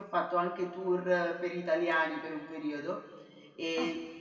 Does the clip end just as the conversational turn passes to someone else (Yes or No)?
No